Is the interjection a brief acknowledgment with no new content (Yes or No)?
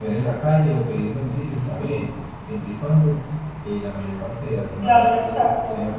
No